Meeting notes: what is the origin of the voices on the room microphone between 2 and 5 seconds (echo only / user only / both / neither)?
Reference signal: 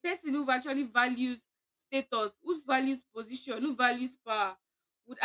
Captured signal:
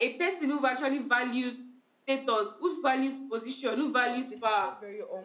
both